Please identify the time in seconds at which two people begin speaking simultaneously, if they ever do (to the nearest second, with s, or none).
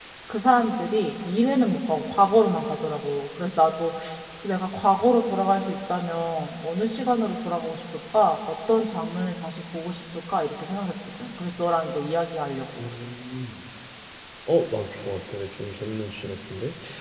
none